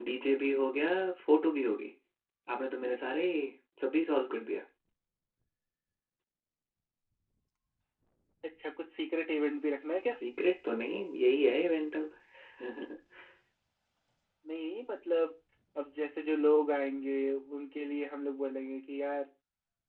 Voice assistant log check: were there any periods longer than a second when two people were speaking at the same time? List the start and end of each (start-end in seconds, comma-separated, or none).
none